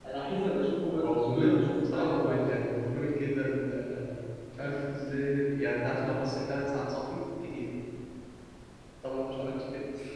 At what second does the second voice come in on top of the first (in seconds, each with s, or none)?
1.0 s